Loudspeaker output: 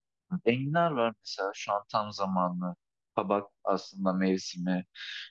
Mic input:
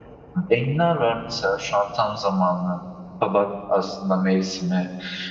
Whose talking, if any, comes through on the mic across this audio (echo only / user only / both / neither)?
echo only